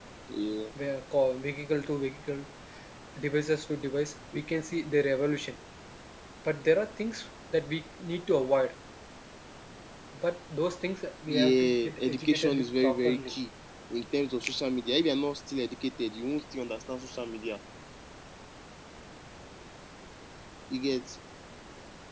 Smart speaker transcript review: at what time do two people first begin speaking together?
11 s

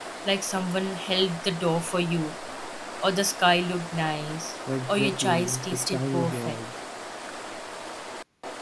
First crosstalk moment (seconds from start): 5 s

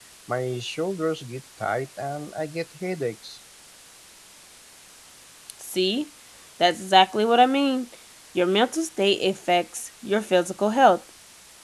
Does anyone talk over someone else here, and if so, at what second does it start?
none

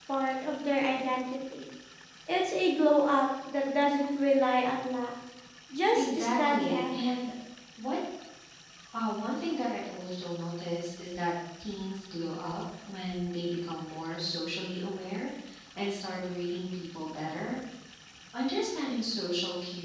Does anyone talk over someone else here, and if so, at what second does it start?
6 s

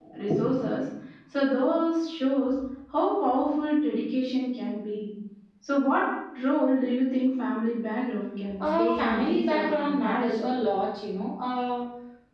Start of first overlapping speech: 9 s

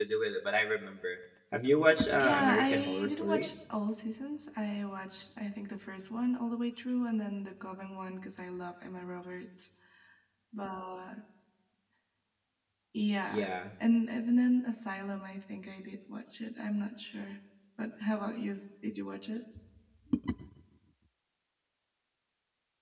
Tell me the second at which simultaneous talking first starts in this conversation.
2 s

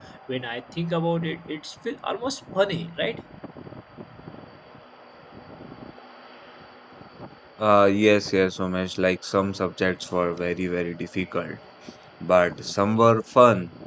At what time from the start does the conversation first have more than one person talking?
none

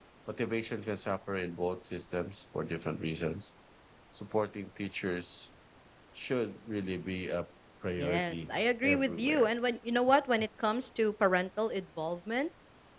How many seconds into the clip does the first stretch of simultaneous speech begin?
8 s

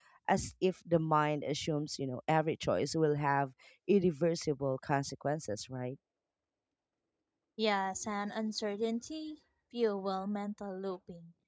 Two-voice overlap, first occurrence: none

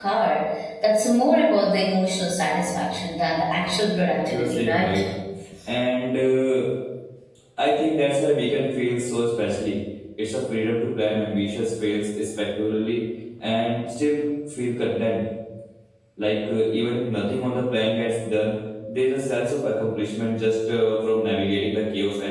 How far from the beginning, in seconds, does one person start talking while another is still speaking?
4 s

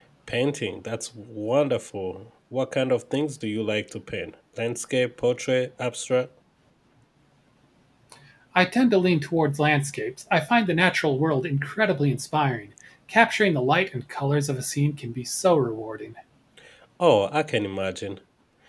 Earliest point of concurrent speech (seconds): none

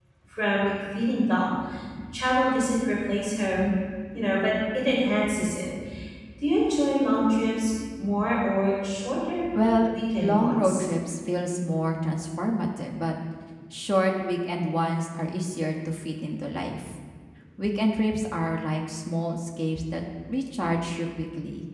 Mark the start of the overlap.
10 s

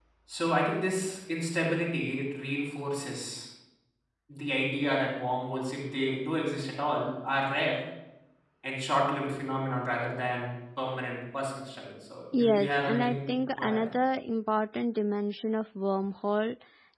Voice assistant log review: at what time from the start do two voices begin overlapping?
12 s

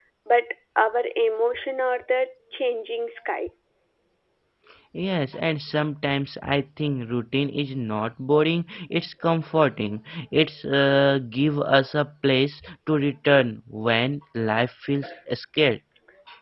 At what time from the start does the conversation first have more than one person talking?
none

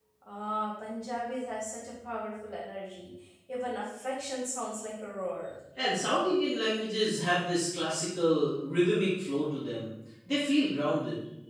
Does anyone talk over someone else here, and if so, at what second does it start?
none

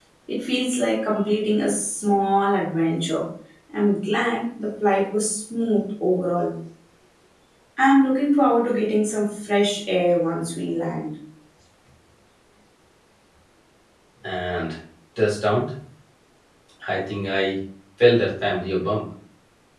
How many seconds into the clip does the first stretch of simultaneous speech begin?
none

